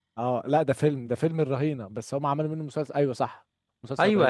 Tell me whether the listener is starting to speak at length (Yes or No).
Yes